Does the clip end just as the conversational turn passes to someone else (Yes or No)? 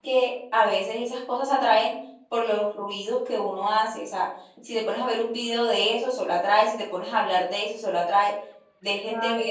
No